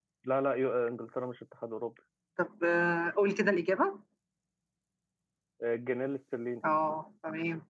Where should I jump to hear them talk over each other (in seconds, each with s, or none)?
none